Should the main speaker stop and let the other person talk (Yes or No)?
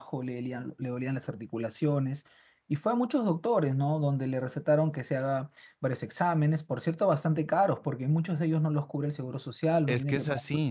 Yes